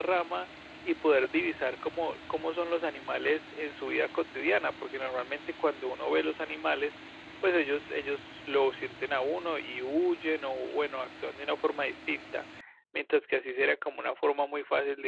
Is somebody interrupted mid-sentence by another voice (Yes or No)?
No